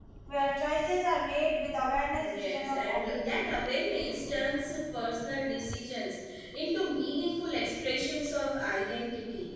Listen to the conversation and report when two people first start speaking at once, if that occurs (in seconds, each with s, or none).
2.2 s